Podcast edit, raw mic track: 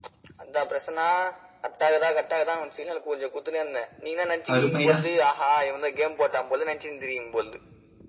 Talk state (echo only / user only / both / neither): both